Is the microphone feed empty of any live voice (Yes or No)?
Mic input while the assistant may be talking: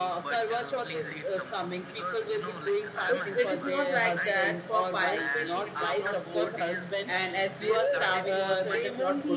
No